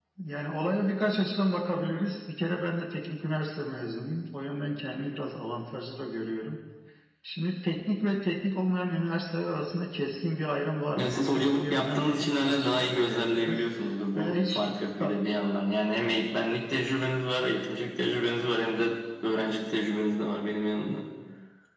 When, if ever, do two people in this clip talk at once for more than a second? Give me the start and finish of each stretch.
11.0-13.6

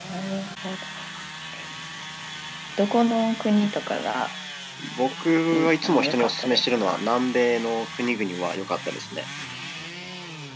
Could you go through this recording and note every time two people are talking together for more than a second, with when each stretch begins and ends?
5.5-7.0

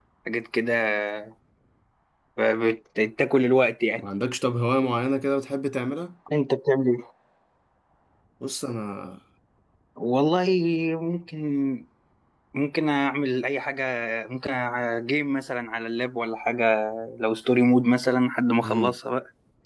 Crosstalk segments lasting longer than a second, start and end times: none

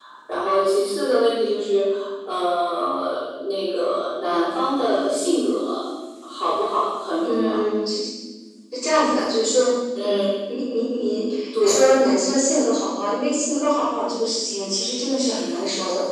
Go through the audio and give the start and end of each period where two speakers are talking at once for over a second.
none

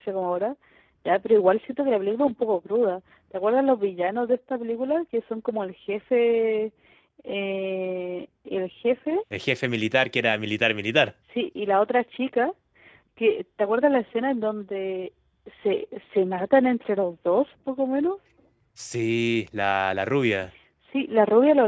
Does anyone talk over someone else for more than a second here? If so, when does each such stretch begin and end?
none

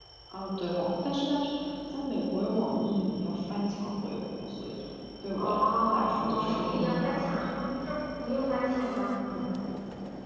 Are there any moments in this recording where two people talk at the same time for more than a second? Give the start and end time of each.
5.3-7.4

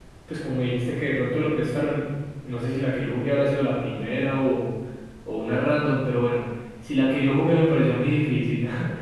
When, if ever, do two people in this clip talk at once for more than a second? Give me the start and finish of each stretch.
none

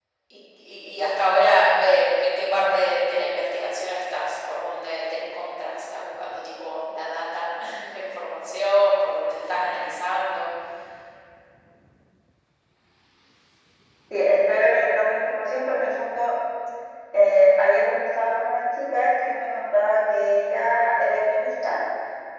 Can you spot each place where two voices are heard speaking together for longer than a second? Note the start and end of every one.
none

